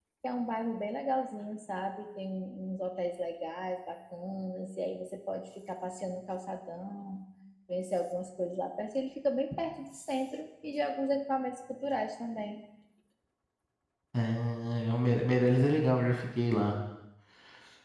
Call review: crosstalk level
none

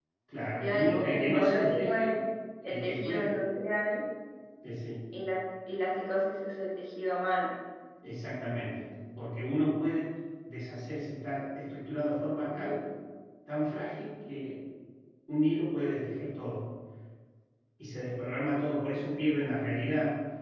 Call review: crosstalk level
present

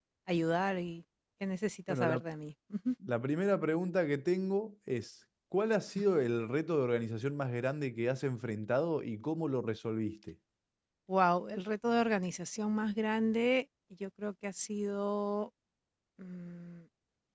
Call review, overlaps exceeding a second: none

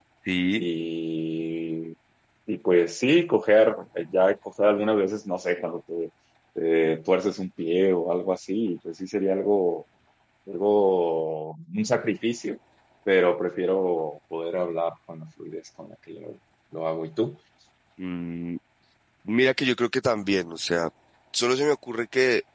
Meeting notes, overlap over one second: none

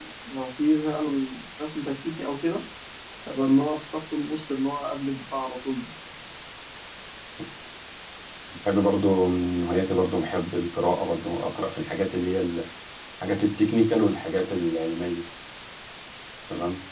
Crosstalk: none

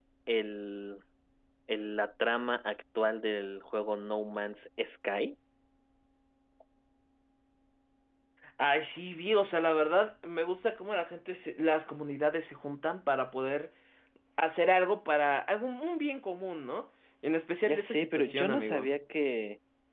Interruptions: present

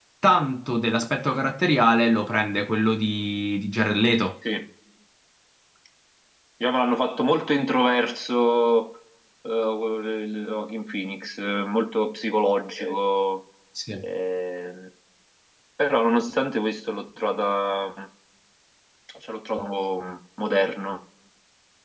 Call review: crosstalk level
none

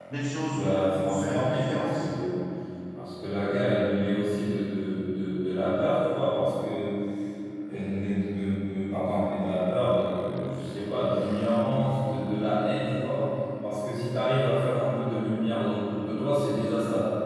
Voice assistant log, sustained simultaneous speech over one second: present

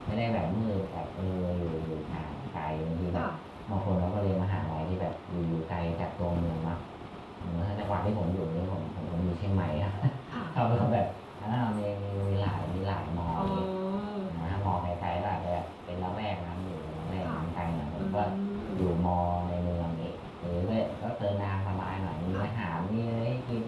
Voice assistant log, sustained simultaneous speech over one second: none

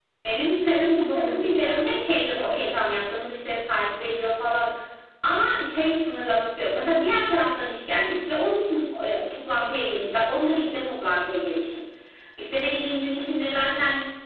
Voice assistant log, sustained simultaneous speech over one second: present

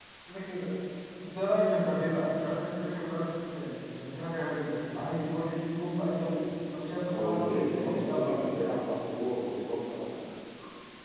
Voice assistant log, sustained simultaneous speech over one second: present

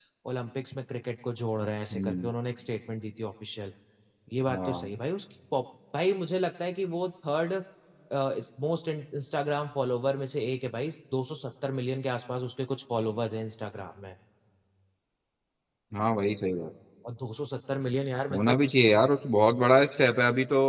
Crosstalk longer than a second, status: none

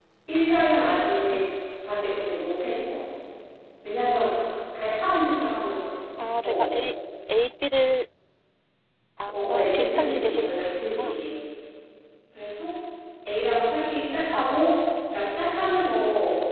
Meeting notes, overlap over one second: present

